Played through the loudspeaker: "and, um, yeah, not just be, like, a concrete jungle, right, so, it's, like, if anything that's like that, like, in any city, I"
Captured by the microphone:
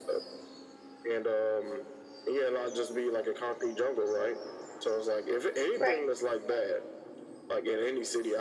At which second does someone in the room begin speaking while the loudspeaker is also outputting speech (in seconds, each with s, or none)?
5.8 s